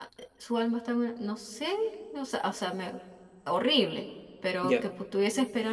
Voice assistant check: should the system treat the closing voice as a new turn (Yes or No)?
No